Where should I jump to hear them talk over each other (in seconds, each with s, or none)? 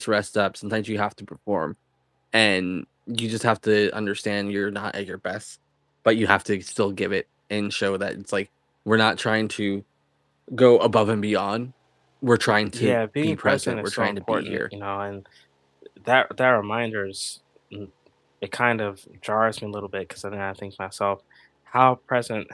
12.7 s